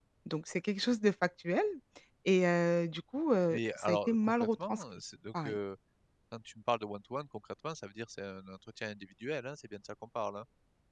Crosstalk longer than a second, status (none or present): present